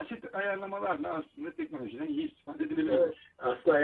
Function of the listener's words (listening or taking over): taking over